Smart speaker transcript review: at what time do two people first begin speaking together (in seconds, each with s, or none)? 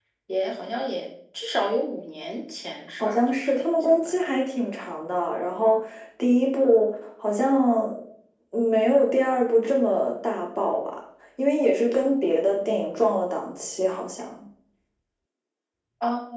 3.0 s